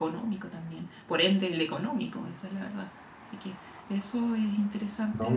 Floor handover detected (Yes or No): Yes